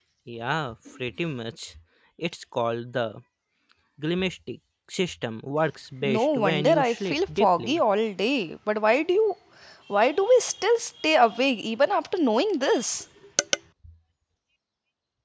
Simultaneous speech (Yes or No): Yes